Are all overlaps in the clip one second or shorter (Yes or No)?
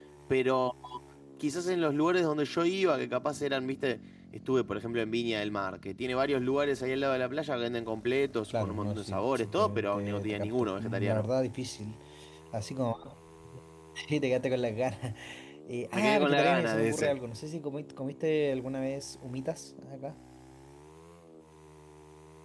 No